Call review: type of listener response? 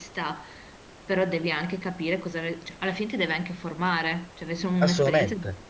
taking over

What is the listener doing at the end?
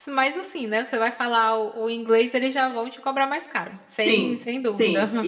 taking over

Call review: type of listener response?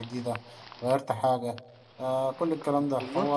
taking over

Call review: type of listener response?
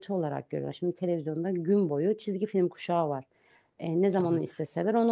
listening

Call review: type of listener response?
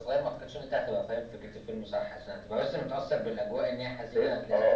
taking over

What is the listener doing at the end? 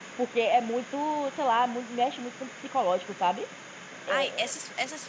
taking over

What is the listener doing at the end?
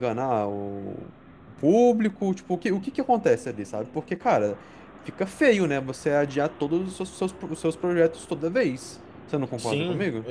taking over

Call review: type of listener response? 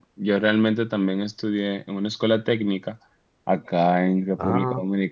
listening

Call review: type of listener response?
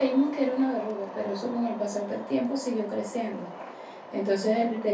listening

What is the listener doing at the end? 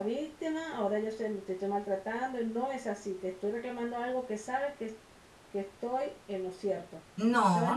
taking over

